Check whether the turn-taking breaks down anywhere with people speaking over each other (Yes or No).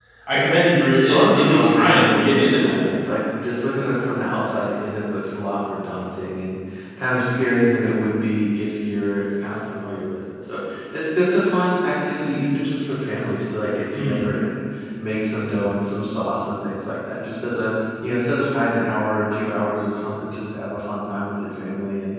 Yes